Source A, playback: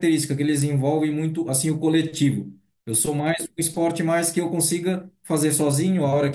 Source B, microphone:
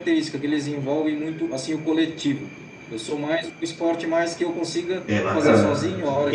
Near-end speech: present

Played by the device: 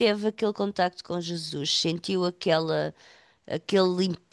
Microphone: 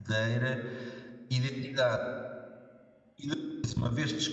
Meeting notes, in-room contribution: present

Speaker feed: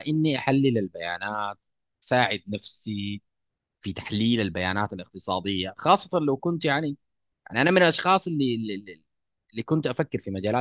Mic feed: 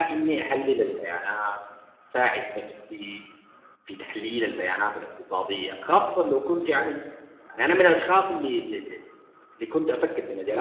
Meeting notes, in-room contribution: none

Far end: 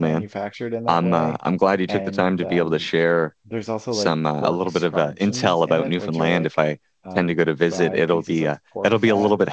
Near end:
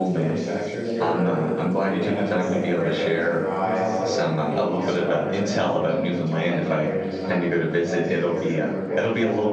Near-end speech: present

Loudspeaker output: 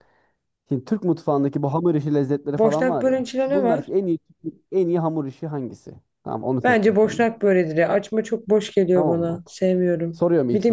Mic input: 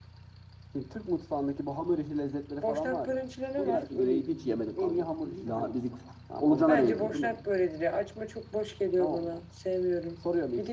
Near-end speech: present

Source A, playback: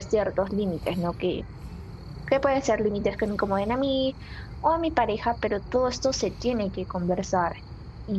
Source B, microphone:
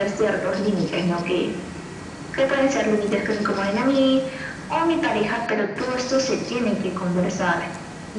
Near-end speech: none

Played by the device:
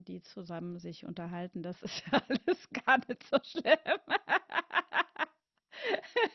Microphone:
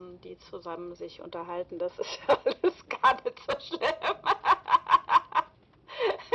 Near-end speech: none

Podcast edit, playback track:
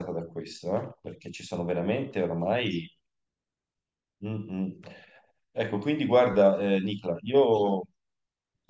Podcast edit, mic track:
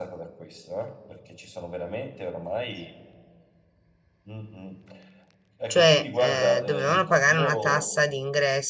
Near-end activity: present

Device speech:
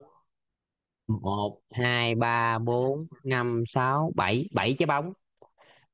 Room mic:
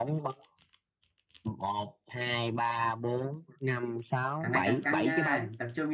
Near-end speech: present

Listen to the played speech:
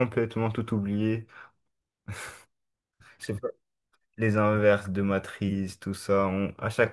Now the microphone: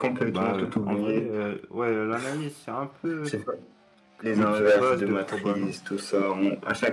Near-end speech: present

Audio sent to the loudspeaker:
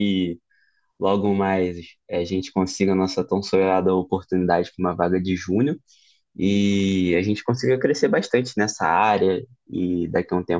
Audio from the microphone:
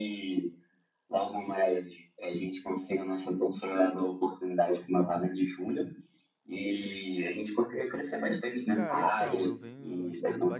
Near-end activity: present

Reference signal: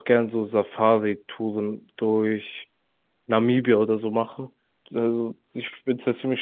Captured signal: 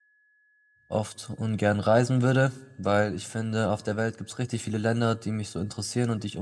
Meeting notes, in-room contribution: present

